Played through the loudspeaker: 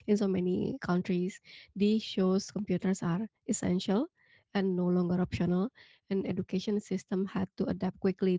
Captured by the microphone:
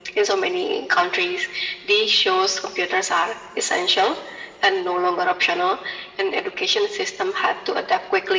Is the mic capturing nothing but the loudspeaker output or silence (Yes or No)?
Yes